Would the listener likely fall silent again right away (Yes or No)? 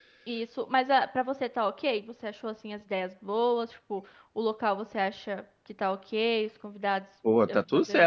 No